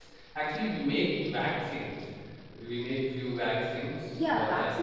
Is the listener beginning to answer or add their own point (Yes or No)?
Yes